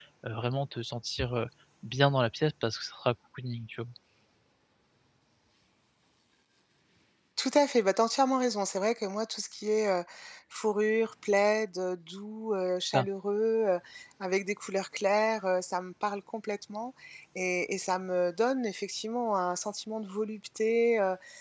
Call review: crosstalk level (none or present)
none